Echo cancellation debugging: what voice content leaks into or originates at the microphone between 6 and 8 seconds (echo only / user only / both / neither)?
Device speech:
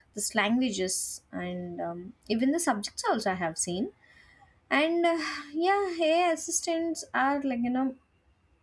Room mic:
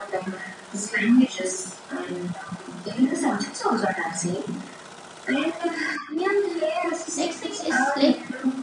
both